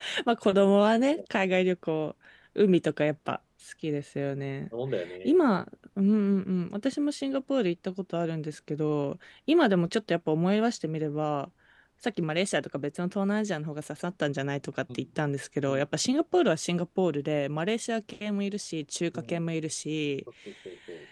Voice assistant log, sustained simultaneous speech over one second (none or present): none